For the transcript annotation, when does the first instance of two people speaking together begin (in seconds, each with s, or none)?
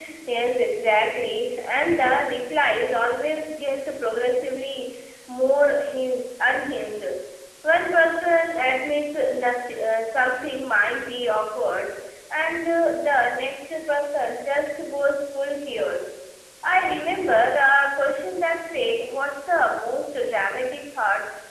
none